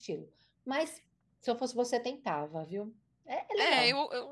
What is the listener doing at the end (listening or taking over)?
taking over